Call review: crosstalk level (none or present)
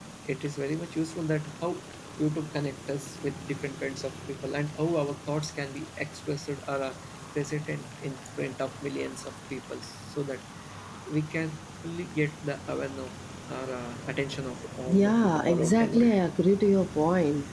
present